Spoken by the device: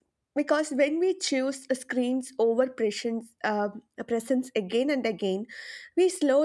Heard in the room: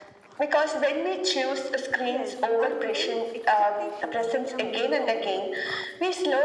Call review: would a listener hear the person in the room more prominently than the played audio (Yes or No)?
No